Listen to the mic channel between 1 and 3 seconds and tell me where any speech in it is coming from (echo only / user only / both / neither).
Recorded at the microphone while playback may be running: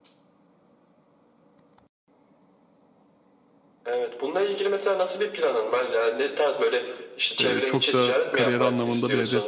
neither